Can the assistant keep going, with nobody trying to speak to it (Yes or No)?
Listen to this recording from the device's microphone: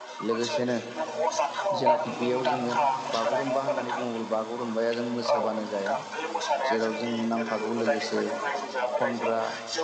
No